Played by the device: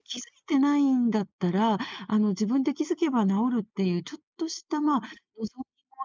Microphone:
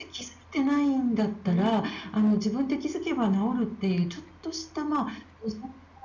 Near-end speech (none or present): present